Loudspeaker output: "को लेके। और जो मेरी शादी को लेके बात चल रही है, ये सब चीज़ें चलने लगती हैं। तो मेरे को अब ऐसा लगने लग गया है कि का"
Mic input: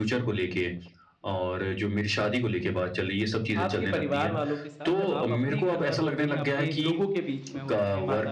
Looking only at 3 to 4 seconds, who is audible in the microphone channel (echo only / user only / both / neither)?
both